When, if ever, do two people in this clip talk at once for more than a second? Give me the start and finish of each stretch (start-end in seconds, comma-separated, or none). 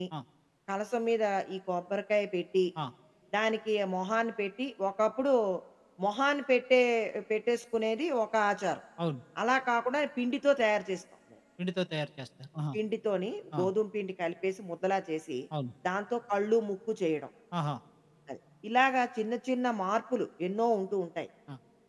none